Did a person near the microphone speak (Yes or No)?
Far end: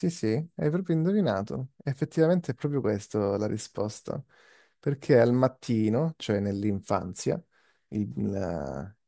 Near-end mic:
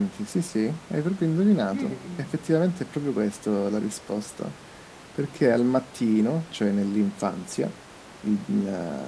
Yes